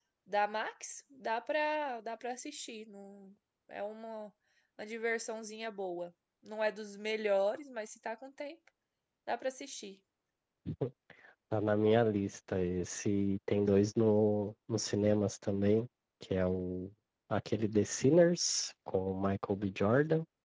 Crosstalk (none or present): none